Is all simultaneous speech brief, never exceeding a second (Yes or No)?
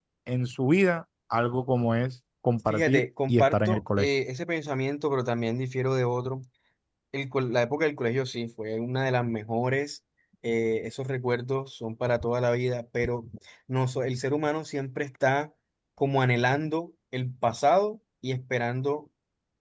No